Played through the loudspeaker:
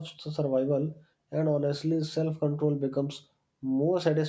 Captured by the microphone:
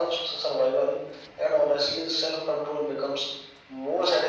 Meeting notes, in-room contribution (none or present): none